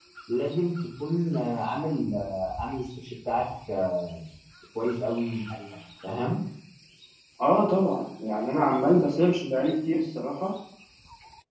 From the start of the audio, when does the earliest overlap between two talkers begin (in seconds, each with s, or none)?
none